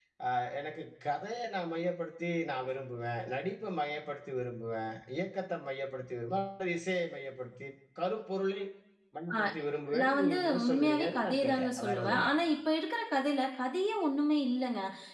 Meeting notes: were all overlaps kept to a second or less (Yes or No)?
No